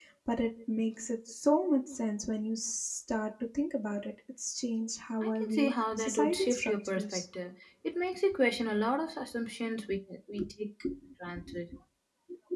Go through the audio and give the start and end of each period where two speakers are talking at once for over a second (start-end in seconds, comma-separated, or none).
5.2-7.2